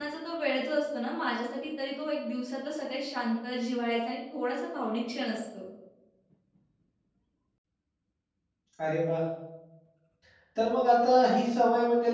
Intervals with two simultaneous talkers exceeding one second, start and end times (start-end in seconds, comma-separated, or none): none